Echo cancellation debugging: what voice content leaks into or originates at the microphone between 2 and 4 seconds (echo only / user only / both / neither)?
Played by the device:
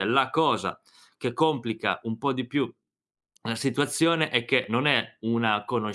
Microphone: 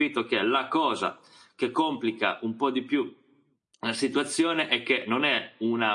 echo only